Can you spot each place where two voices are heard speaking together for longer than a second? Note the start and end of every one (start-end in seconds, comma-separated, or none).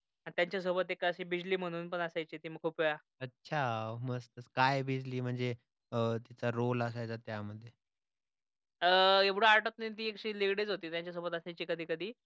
none